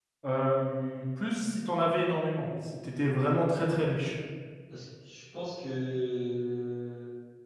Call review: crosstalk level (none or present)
none